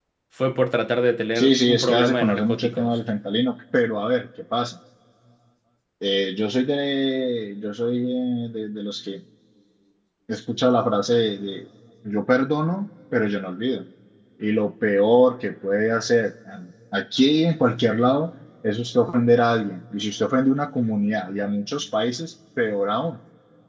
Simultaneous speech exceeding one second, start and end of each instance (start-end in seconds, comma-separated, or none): 1.4-3.0